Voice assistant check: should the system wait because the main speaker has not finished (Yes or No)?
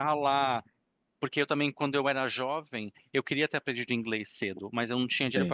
Yes